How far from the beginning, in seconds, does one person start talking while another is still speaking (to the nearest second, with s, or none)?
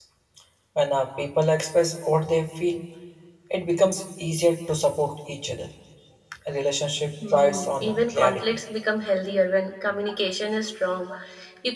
7 s